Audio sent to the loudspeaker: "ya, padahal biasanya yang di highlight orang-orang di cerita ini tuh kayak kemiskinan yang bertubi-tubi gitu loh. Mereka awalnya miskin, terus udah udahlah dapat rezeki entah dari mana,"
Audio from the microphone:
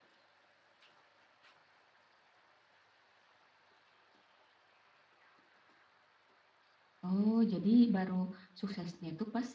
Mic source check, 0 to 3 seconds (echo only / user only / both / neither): neither